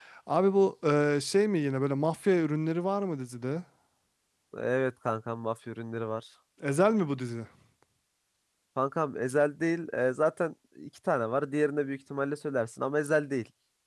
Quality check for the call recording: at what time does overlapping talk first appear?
none

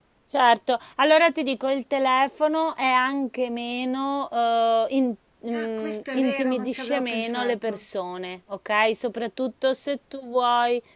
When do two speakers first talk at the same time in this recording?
6 s

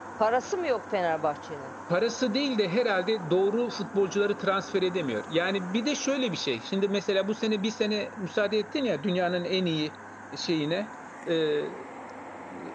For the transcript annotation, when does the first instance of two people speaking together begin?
none

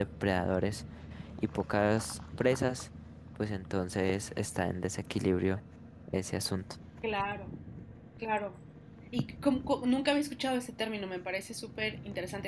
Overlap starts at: none

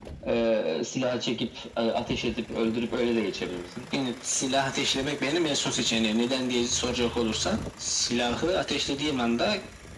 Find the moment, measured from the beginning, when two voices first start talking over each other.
none

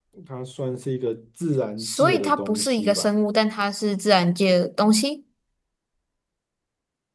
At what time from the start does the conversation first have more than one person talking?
2 s

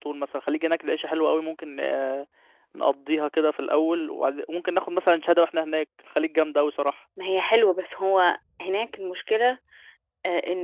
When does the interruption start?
none

